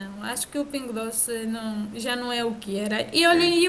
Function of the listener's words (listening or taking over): listening